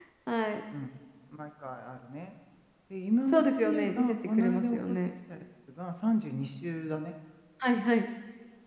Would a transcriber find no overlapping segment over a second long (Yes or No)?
No